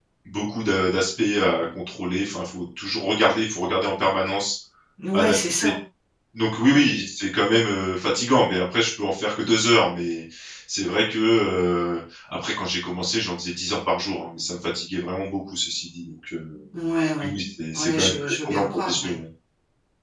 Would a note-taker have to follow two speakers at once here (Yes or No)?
Yes